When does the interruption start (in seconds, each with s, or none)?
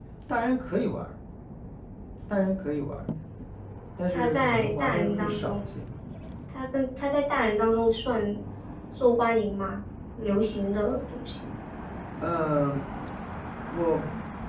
4.1 s